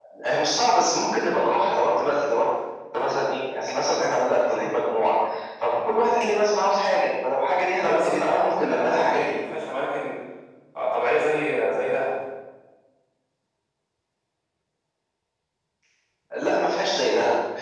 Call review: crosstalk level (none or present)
present